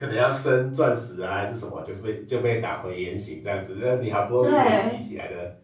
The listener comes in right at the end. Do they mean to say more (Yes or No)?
No